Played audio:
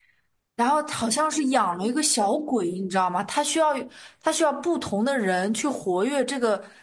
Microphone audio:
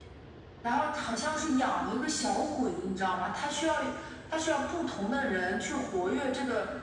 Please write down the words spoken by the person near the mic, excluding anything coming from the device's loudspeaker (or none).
none